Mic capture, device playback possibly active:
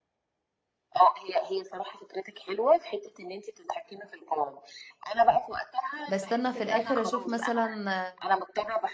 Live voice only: بستنى في الاخر اشوف مثلا

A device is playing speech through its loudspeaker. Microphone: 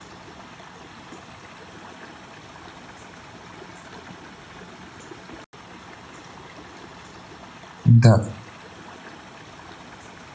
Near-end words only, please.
Da-

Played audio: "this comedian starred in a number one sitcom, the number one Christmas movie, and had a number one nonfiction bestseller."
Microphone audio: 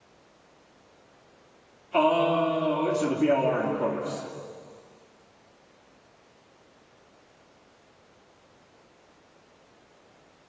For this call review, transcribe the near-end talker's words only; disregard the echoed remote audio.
Oh, so the BLR in quotes.

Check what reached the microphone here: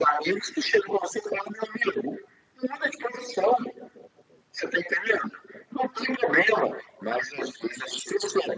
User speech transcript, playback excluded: none

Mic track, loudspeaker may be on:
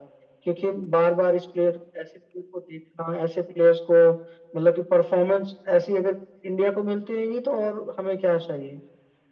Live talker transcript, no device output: none

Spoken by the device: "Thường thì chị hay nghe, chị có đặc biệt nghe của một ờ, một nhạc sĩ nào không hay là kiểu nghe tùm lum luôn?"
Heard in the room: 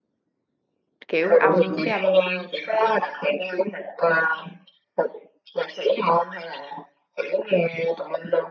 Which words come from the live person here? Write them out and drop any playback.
kiểu âm cái âm

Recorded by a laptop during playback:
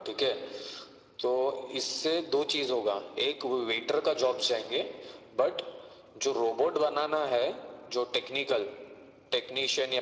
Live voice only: none

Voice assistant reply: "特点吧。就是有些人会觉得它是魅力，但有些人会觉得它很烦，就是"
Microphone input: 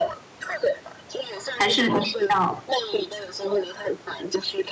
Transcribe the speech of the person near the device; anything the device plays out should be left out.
还是你比较

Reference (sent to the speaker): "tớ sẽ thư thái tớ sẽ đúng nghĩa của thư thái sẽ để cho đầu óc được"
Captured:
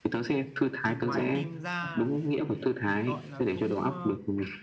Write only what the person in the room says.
thì ngoài phim ra thì gọi là cũng ờ,

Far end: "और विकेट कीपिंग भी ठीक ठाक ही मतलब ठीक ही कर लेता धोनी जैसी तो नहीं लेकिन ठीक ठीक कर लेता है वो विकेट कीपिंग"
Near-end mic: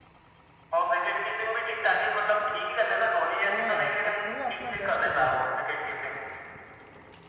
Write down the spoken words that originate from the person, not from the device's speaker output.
हाँ यार अब मतलब अपना बेस्ट दे देता है

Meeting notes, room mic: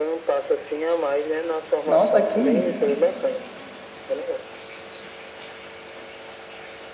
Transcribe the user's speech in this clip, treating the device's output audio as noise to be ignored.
nossa, que,

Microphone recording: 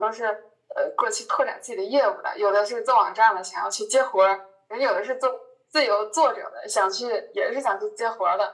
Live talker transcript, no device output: none

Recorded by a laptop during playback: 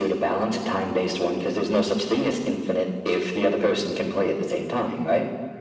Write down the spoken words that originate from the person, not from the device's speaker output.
none

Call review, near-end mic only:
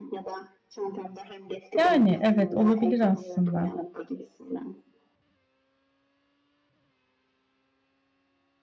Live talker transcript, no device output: Yani evet olabilir aslında.

